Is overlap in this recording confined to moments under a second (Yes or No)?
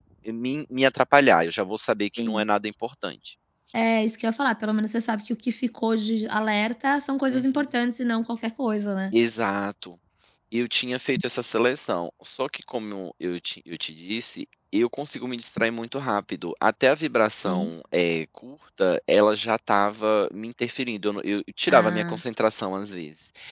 Yes